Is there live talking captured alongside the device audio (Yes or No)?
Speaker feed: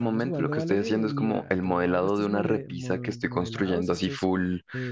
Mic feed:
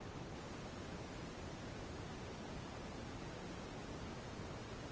No